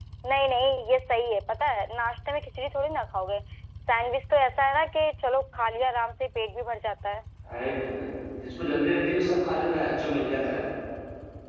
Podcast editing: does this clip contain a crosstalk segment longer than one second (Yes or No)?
No